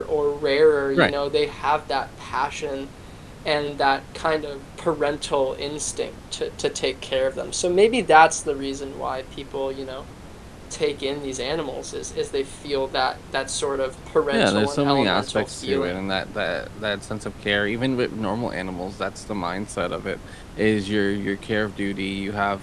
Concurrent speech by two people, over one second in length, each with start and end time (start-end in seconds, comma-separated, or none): 14.3-16.0